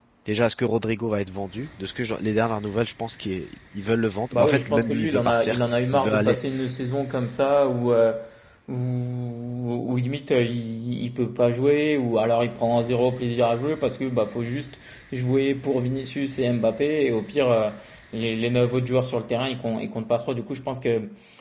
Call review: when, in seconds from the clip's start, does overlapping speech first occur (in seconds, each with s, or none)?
4.3 s